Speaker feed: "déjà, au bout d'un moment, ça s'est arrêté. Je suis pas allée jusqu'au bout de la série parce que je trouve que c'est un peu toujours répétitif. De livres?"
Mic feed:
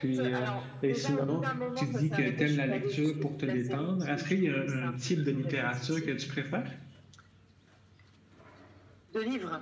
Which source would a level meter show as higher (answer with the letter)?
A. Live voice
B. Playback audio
A